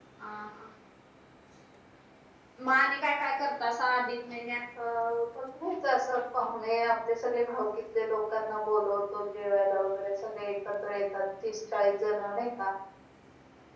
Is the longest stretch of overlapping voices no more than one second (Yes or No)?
Yes